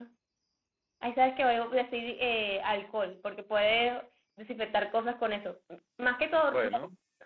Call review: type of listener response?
listening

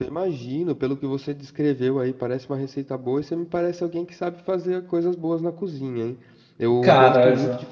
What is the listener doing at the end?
listening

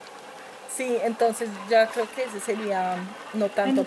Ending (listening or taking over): taking over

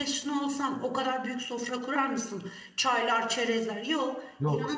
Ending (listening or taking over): listening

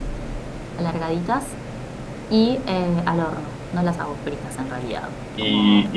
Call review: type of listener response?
taking over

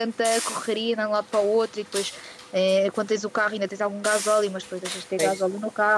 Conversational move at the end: listening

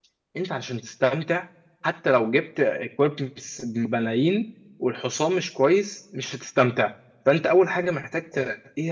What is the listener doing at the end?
listening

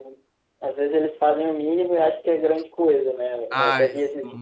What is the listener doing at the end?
listening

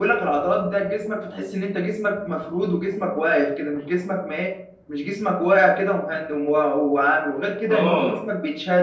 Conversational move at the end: listening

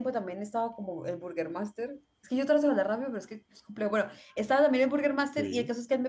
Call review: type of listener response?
listening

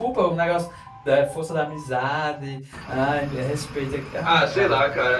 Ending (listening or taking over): taking over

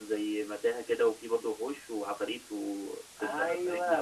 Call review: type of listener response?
taking over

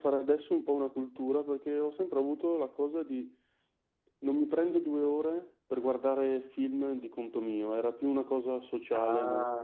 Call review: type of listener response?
taking over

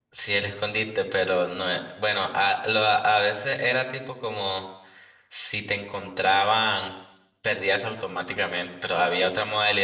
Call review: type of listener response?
listening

